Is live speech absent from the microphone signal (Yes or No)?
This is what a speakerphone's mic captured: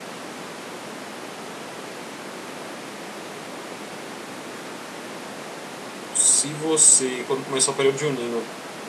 No